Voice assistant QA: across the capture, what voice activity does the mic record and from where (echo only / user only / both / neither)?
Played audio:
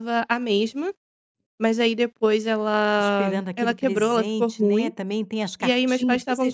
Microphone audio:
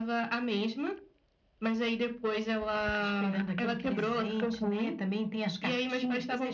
echo only